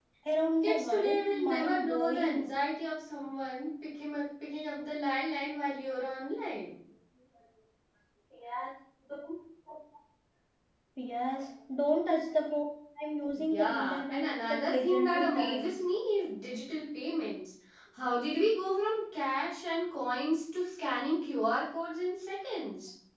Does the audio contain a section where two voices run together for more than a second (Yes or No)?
Yes